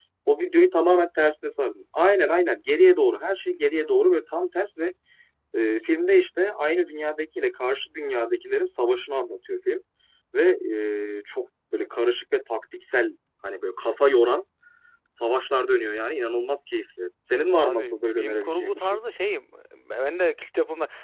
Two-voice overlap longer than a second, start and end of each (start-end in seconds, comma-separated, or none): 17.5-19.0